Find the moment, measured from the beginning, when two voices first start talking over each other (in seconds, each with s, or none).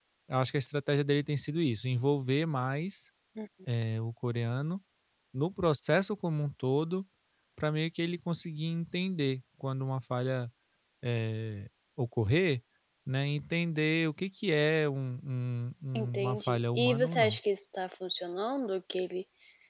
16.1 s